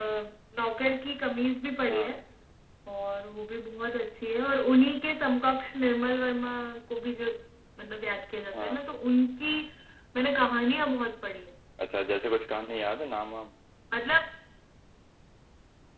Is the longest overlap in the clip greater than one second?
No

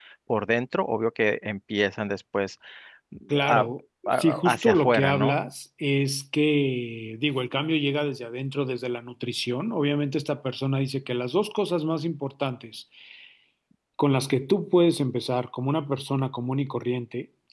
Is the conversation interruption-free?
No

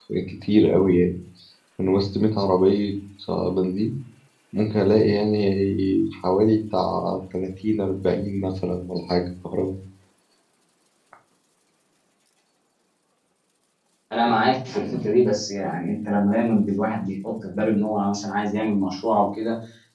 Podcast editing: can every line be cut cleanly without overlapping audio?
Yes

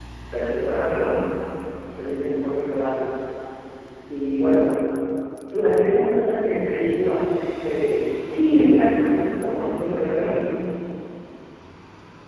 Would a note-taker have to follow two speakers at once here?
Yes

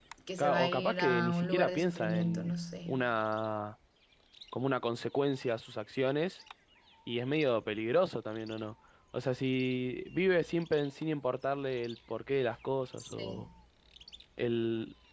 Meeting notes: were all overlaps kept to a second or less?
No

